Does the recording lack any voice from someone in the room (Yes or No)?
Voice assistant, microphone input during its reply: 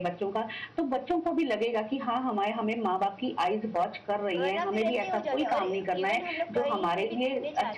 No